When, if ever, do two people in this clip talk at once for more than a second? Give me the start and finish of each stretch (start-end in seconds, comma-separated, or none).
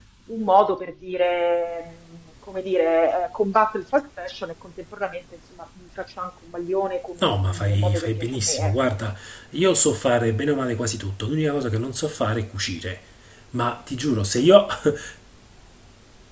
7.2-8.7